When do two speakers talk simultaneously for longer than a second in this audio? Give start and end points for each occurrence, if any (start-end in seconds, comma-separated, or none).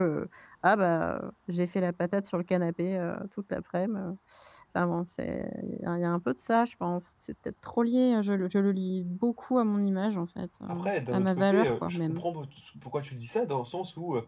10.7-12.2